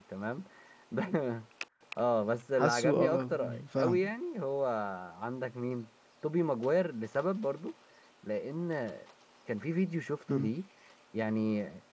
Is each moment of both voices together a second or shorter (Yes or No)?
No